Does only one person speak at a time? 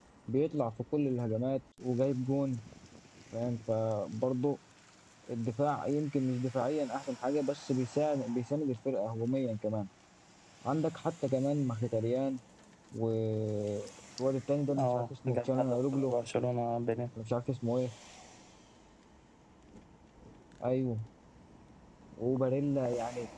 No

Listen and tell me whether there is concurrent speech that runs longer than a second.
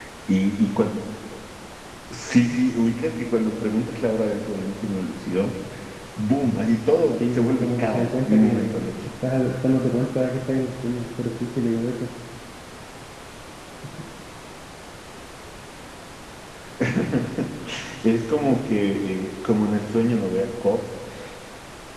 Yes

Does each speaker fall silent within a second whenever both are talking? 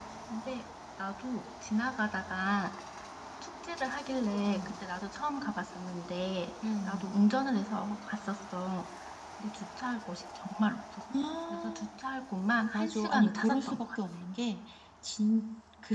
No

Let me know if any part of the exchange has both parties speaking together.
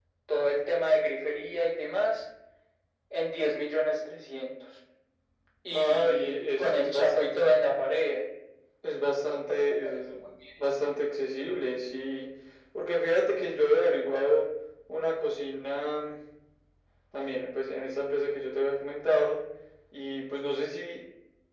Yes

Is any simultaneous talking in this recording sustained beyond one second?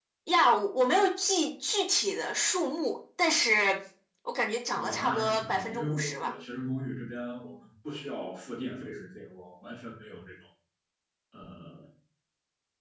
Yes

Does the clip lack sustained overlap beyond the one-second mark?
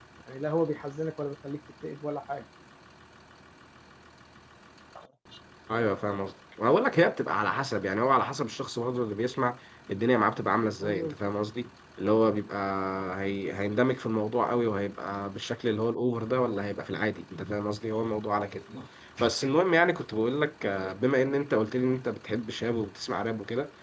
Yes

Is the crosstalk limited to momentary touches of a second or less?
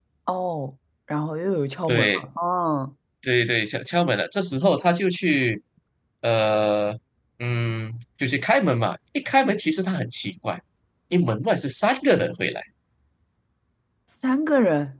Yes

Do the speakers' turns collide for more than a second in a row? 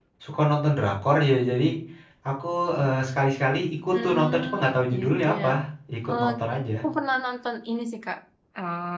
Yes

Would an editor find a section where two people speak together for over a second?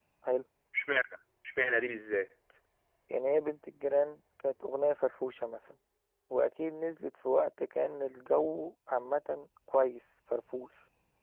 No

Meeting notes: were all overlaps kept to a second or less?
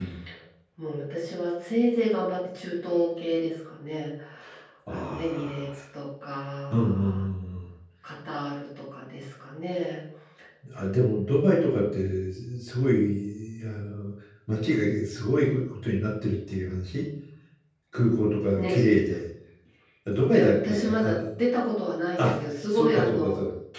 No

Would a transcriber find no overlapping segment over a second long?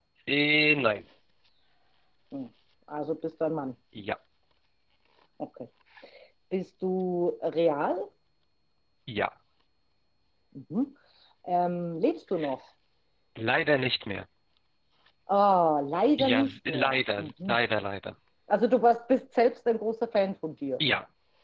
No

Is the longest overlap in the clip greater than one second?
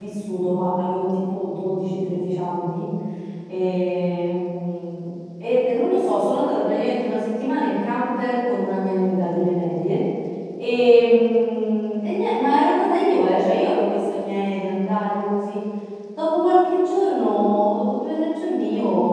No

